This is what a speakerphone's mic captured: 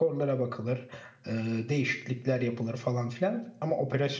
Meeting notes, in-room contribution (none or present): present